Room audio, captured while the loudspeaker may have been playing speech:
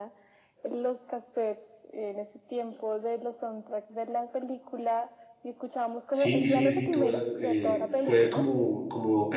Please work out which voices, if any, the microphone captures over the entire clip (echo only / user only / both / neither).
both